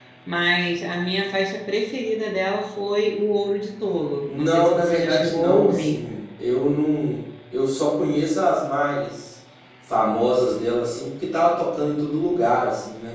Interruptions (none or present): present